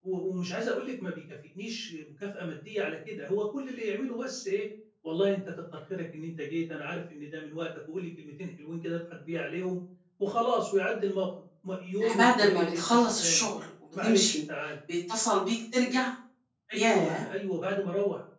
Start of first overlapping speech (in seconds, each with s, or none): 12.0 s